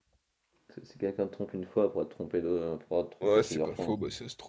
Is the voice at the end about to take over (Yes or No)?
Yes